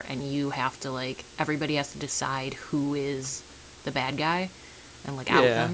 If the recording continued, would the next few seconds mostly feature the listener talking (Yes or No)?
Yes